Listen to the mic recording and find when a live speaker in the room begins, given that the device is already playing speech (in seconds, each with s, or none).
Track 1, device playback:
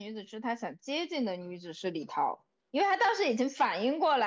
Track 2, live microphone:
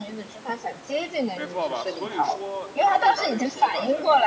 1.3 s